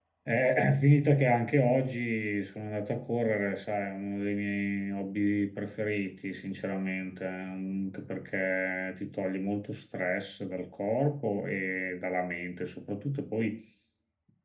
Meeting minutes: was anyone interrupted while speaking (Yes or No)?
No